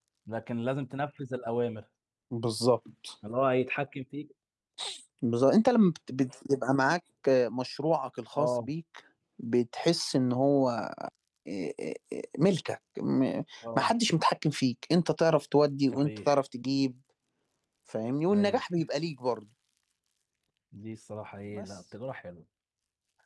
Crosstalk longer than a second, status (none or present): none